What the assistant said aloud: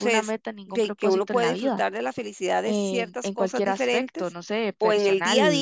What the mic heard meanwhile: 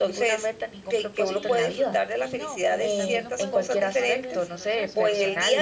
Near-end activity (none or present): present